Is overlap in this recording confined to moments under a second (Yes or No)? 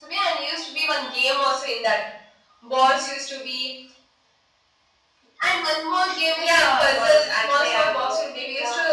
No